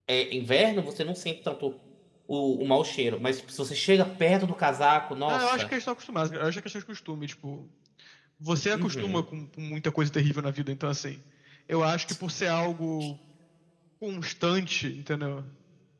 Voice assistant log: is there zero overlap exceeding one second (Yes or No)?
Yes